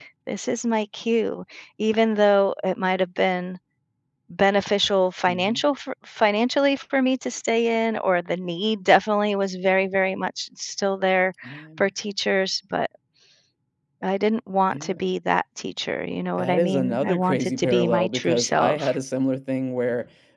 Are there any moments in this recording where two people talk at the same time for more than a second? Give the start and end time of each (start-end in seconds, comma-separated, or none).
16.4-18.9